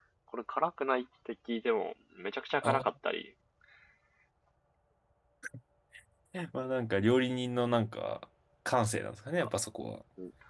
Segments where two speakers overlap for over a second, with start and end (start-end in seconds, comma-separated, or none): none